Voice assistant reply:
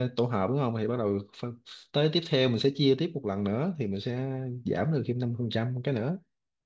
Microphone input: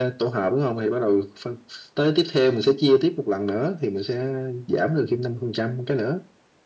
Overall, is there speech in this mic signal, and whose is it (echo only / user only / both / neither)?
echo only